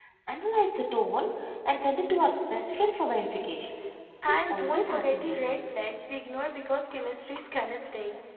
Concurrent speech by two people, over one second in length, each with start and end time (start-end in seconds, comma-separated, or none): 4.3-5.6